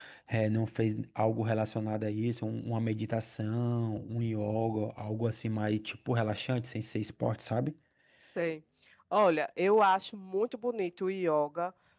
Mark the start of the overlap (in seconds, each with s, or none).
none